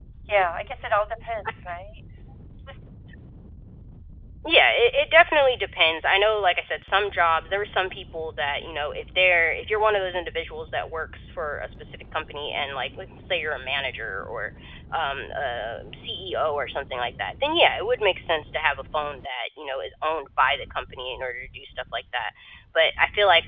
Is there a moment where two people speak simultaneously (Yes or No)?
No